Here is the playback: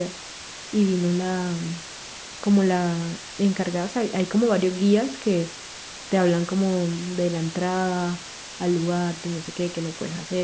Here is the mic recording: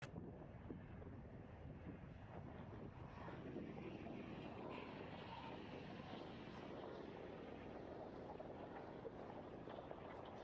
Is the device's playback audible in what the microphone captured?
No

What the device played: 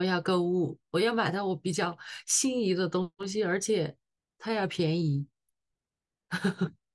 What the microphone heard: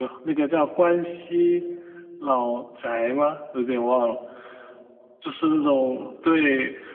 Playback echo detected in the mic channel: No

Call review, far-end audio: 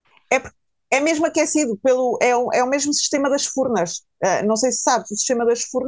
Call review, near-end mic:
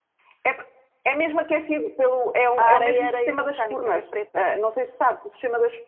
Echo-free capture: No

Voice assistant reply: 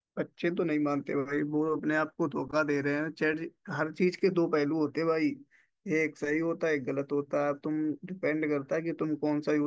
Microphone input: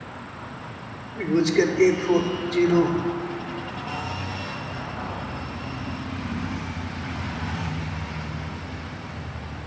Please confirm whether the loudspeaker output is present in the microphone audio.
No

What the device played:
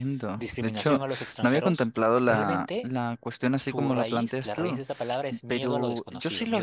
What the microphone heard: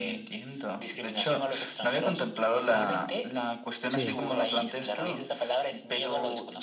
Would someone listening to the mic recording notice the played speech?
Yes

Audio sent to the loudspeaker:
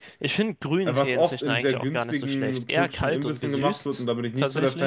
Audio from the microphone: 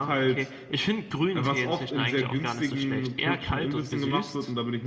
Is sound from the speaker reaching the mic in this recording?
Yes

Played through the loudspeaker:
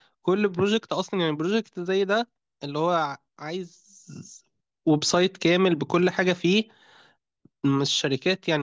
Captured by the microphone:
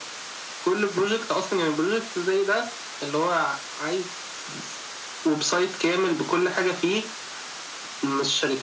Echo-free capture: No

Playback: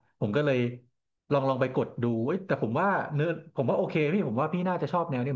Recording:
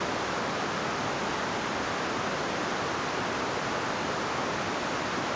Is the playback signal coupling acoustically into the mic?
No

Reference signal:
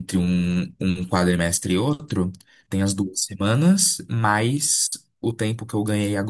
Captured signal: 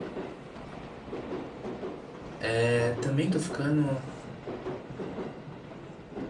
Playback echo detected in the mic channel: No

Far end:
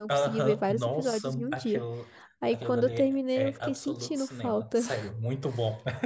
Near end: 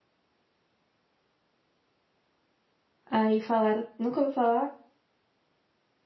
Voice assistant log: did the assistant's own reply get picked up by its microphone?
No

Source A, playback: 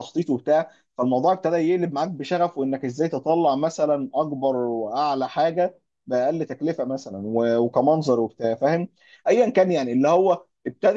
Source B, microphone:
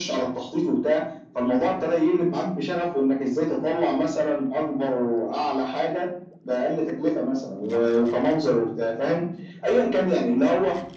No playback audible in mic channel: No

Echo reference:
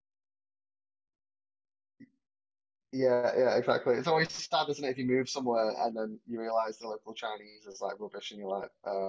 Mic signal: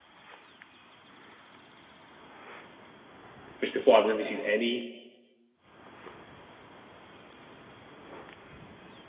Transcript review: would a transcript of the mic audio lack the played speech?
Yes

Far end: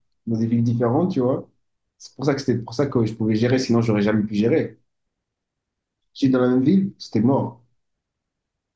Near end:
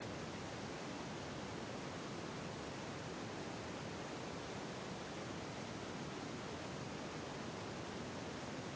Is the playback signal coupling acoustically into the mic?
No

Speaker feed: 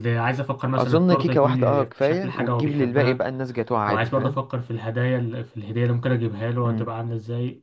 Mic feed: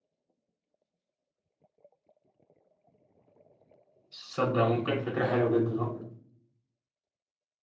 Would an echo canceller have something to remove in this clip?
No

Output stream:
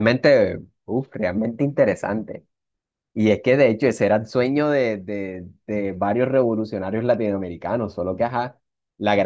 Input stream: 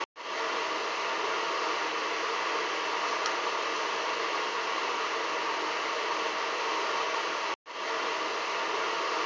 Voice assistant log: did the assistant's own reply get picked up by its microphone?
No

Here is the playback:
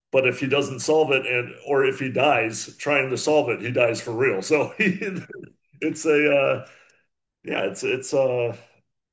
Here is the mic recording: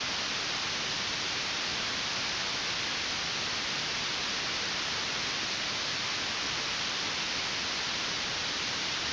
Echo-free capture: Yes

